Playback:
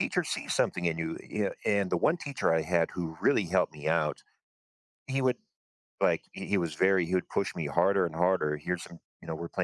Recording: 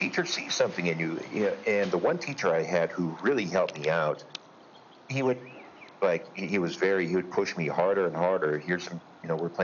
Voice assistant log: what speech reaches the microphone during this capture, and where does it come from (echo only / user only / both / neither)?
echo only